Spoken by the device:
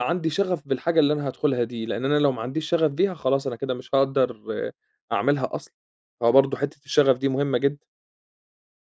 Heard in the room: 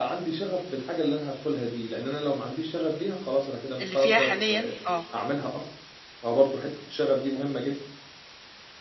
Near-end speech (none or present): present